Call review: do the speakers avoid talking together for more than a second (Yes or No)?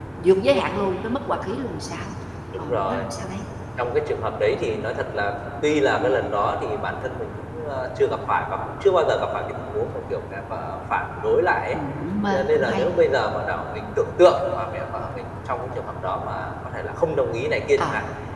Yes